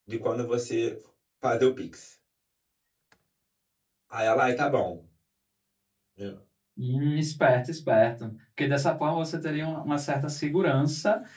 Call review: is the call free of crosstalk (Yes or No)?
Yes